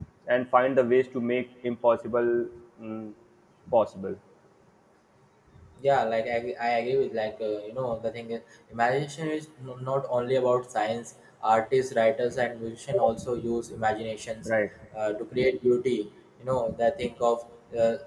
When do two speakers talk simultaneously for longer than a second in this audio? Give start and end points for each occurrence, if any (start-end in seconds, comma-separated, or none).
none